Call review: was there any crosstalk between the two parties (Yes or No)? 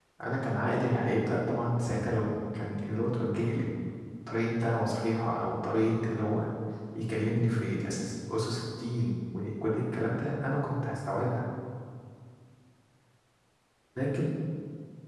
No